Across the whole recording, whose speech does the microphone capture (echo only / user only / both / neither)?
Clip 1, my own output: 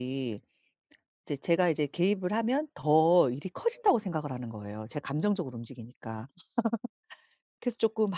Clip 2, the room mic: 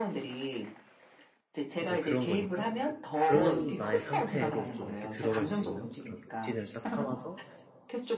both